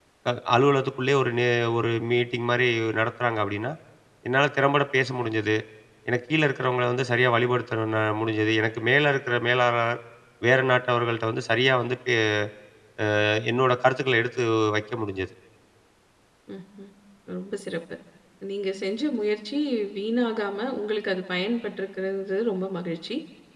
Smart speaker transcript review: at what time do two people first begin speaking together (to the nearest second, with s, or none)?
none